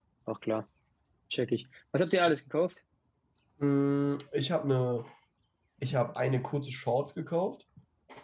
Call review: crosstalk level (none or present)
none